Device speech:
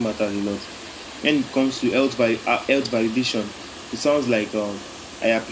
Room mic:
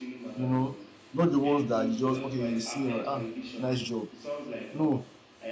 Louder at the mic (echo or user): user